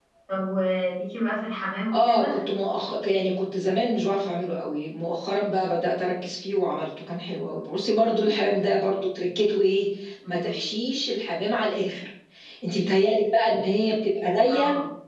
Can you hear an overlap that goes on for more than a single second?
No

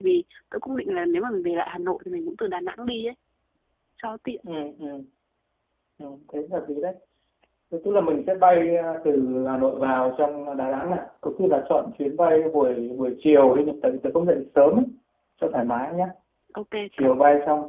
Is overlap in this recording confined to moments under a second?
Yes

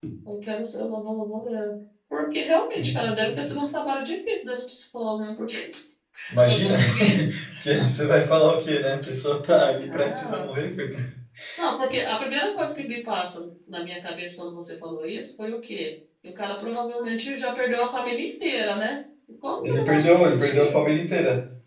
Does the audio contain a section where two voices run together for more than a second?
Yes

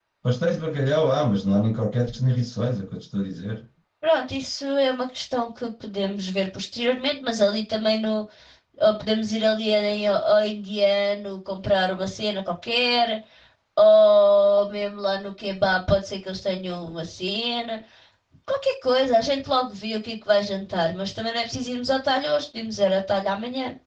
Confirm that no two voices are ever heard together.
Yes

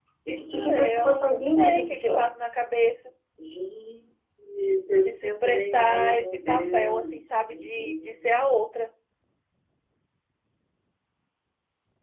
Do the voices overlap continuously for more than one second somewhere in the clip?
Yes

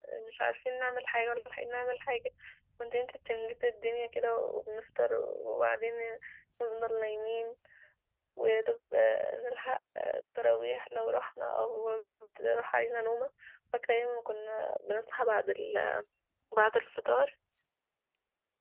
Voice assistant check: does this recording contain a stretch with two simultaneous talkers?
No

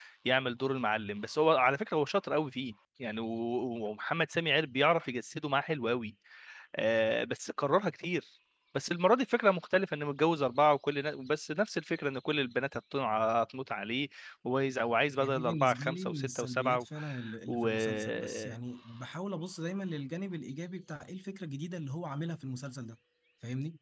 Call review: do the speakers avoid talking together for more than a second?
No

